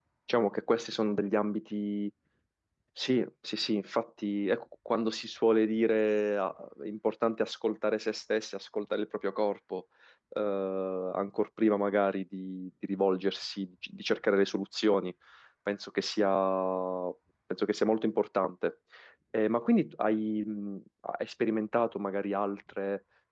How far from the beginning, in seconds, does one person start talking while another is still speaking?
none

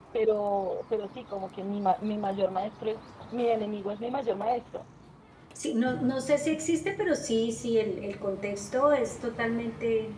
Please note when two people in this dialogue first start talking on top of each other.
none

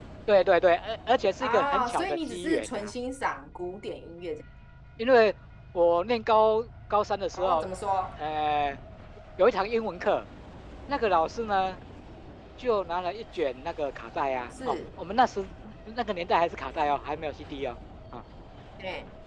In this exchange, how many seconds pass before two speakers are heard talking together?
1.4 s

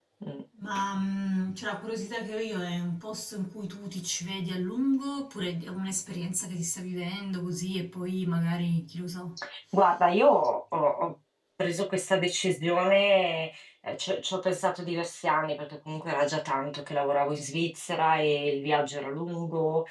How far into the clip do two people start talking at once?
none

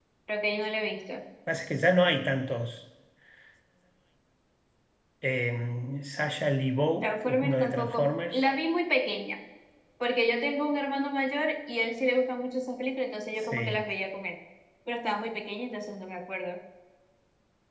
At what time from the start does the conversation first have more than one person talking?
7.0 s

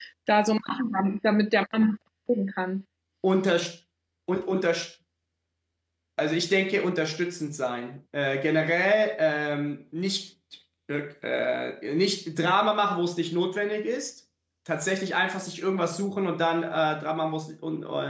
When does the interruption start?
none

